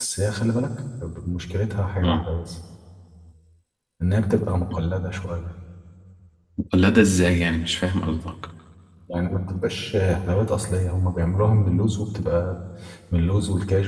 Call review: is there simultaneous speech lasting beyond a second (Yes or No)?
No